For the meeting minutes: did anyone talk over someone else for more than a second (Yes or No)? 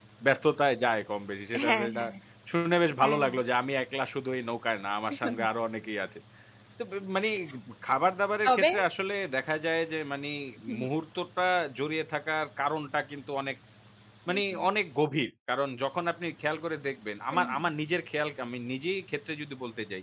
No